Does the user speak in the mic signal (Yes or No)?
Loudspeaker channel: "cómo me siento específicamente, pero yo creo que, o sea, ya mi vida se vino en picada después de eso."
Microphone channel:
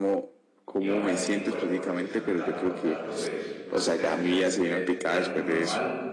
Yes